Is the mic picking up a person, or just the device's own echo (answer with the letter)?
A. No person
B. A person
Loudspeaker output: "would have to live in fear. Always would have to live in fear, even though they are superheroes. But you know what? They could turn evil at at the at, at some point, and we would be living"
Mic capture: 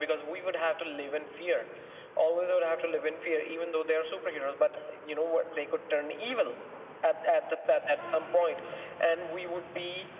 A